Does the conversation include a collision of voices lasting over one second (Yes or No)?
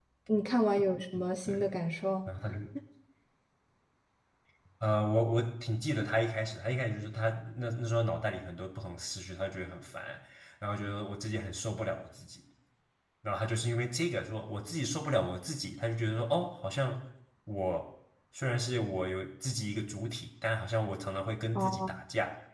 No